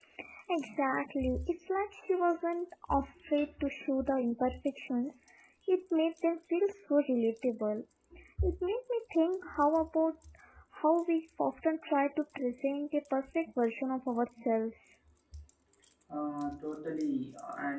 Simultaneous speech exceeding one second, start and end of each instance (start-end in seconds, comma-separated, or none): none